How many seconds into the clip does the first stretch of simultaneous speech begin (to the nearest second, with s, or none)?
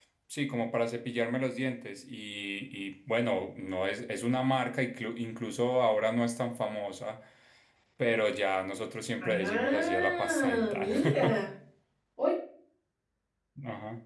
9 s